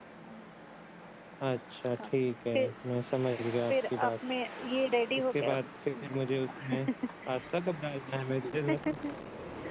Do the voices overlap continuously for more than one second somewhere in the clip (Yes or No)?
No